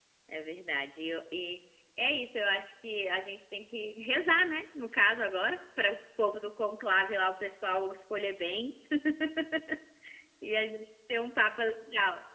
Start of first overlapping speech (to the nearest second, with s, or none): none